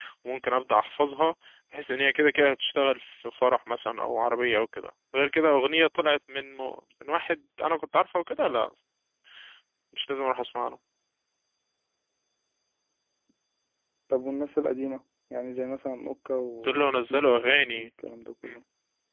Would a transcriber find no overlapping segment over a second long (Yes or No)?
No